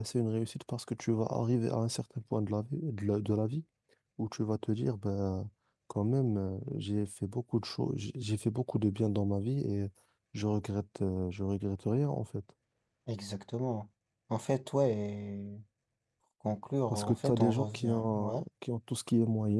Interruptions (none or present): present